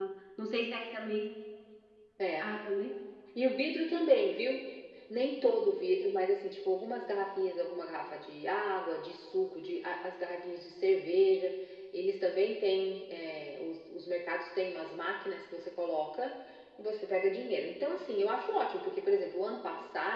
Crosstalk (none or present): none